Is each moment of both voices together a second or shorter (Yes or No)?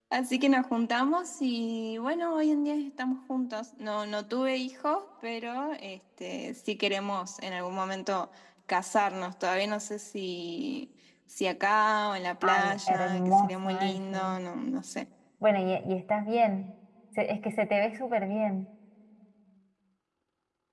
No